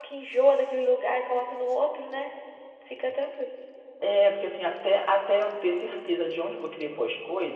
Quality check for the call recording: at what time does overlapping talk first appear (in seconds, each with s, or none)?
none